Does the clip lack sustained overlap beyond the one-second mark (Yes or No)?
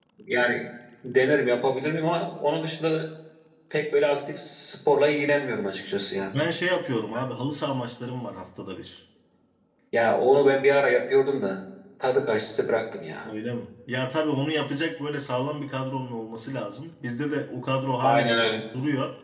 Yes